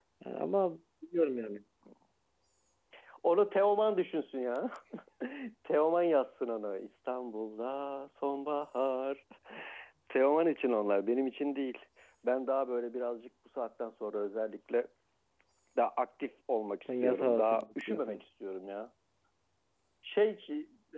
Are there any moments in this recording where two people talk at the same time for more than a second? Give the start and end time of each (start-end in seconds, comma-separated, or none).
16.9-18.2